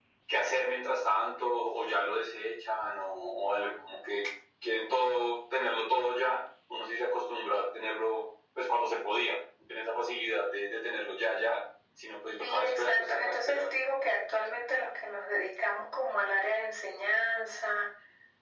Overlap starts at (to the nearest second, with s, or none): 12 s